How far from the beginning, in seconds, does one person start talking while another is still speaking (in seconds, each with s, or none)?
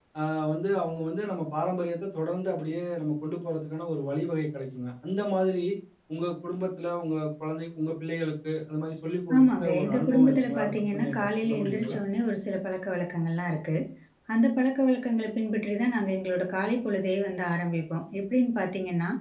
9.3 s